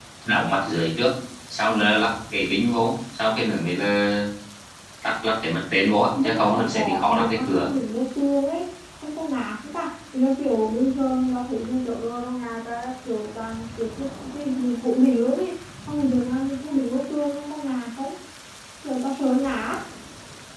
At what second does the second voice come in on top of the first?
6.1 s

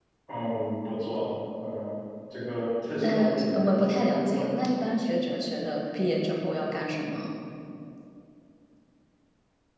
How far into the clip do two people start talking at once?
3.0 s

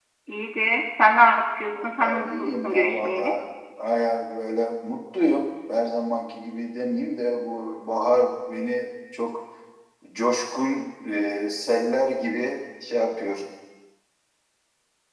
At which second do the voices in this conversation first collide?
1.7 s

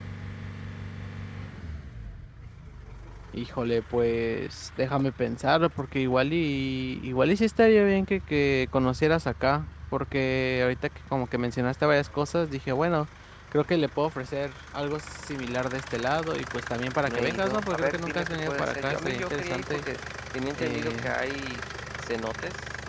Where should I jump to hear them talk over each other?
17.0 s

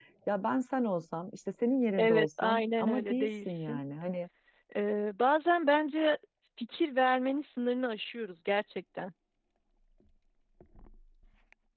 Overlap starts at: 1.9 s

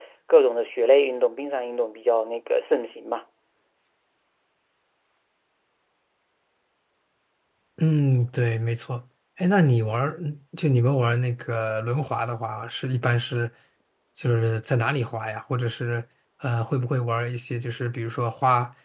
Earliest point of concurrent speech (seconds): none

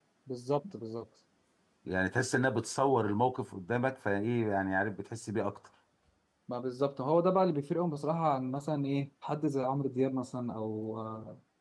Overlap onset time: none

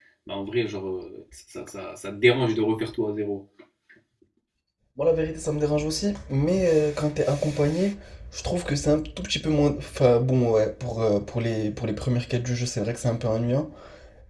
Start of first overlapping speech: none

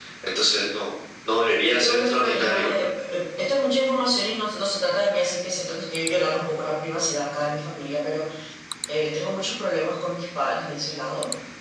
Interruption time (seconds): 1.7 s

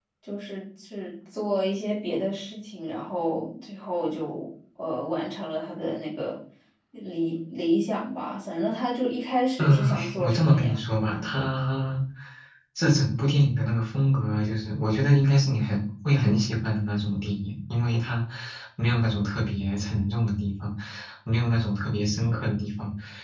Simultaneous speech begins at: 9.6 s

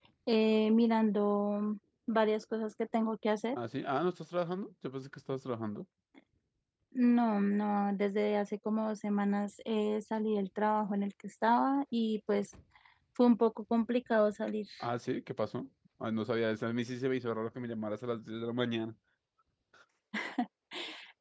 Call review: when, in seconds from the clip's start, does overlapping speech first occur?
none

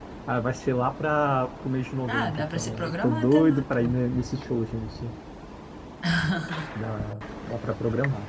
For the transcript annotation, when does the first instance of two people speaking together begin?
2.1 s

